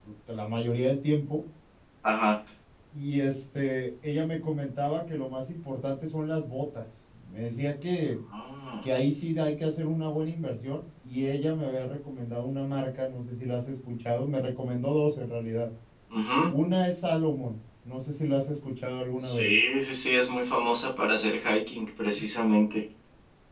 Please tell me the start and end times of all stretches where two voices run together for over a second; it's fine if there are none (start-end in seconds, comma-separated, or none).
none